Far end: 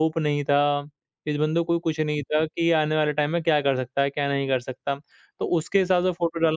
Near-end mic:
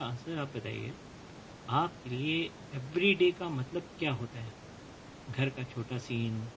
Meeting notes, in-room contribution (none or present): present